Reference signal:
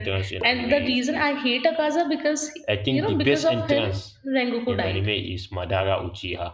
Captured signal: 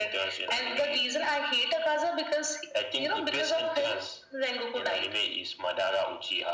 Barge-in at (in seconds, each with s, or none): none